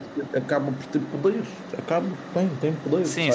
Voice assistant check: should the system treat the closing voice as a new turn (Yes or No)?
Yes